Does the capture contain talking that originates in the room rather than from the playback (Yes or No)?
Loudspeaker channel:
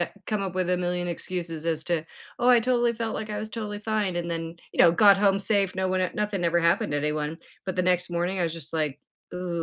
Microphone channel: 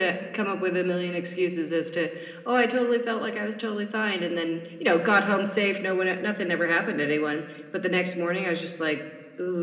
No